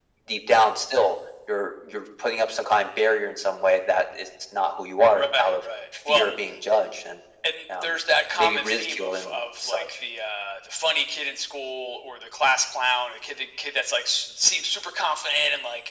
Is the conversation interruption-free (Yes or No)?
No